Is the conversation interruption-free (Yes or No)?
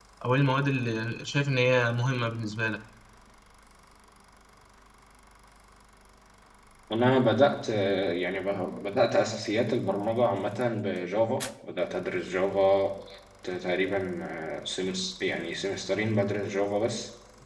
Yes